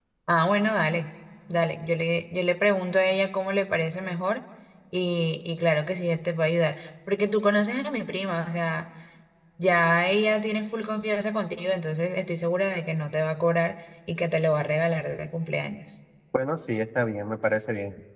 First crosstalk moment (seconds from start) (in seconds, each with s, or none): none